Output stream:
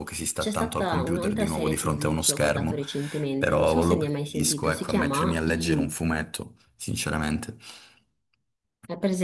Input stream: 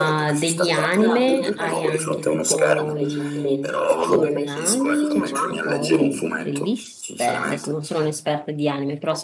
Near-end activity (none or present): present